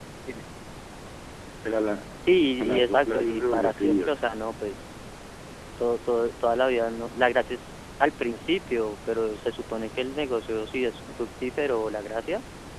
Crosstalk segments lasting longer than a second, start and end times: 2.6-4.2

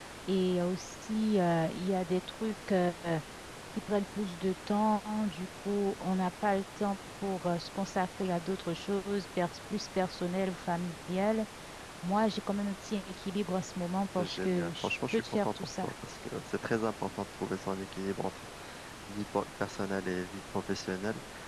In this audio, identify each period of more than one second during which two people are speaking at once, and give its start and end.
14.2-15.9

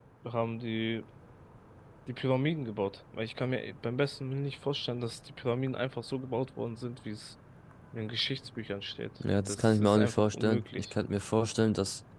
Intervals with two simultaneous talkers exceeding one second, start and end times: 9.5-10.9

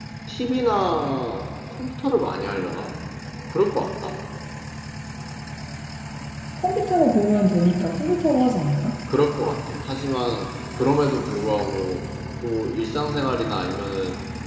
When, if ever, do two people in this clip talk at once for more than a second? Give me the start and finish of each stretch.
none

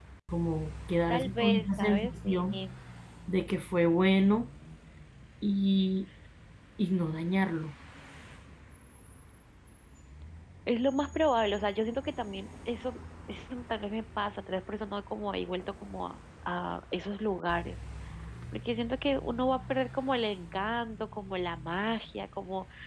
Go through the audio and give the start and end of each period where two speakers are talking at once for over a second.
1.1-2.4

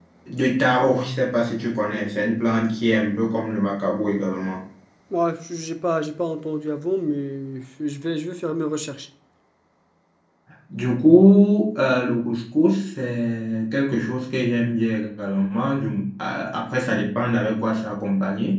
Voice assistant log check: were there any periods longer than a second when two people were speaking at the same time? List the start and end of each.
none

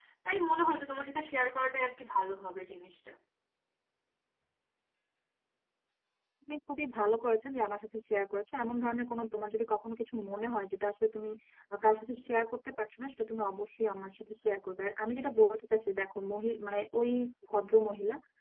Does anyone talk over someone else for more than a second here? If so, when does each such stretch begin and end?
none

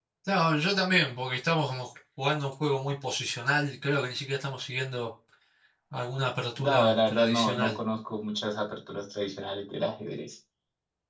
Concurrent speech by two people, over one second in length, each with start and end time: 6.6-7.8

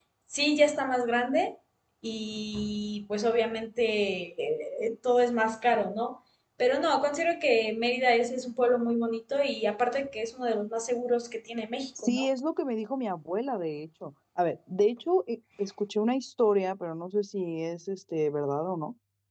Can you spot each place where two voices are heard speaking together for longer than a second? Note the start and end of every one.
none

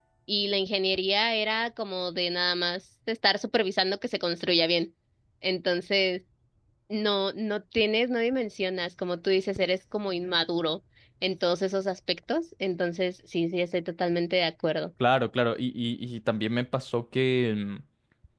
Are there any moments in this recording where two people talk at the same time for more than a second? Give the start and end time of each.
none

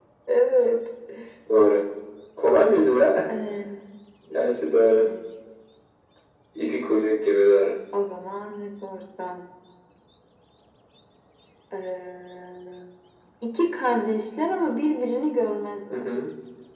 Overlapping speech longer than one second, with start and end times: none

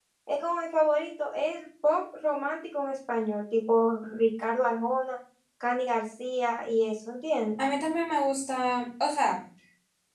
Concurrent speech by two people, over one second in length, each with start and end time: none

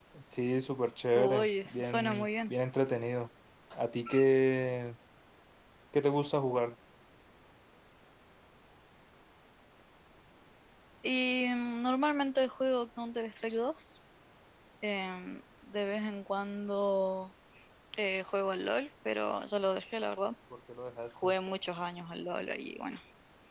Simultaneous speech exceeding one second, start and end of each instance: 1.1-2.5

